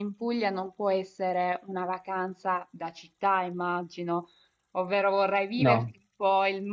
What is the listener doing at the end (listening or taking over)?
listening